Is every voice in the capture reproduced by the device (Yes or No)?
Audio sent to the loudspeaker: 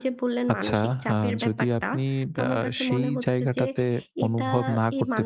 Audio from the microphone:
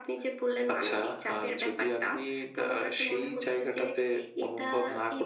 Yes